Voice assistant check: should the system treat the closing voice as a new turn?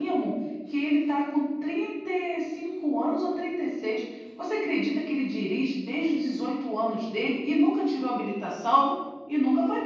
Yes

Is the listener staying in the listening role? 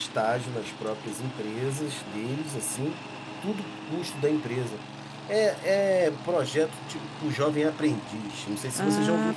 No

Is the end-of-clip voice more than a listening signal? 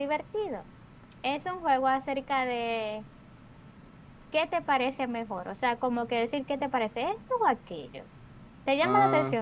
Yes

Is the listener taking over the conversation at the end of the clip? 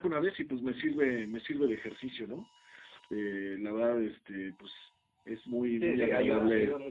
Yes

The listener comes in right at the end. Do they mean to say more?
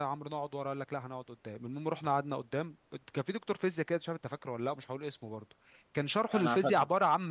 No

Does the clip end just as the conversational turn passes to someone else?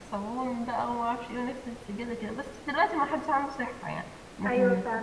Yes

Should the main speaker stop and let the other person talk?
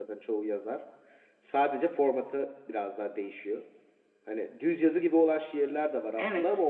No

